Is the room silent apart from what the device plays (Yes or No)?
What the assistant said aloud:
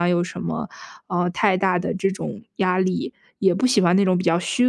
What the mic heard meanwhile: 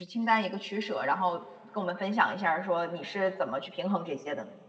No